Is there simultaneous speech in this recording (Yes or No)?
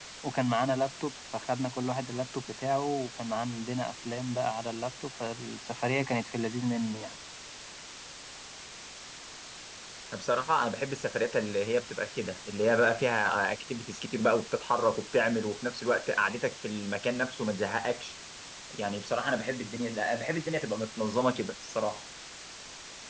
No